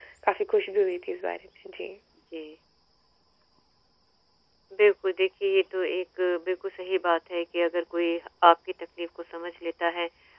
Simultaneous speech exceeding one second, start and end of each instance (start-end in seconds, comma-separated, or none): none